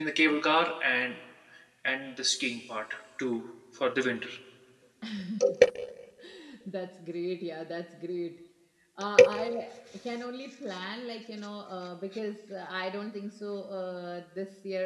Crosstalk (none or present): none